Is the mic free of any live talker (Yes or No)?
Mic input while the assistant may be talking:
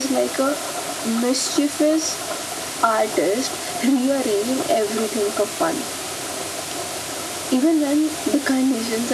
Yes